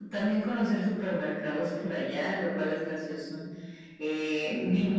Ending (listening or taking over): taking over